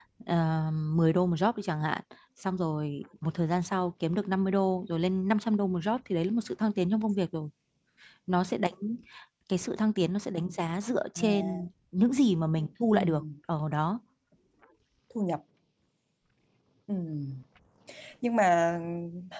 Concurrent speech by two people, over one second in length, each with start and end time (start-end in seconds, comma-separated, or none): none